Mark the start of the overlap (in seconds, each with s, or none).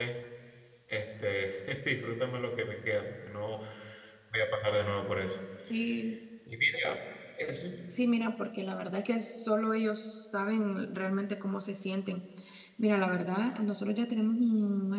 none